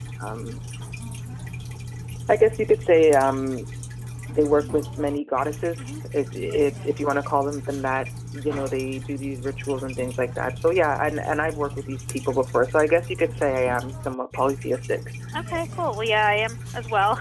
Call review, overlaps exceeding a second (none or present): none